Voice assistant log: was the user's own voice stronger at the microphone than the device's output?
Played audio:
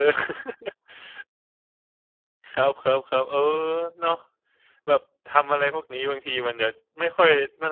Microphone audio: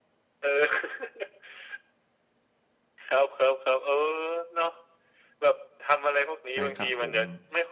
No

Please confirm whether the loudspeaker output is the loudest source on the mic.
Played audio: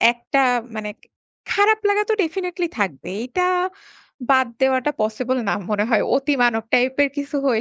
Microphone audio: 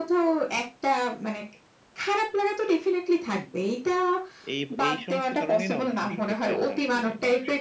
Yes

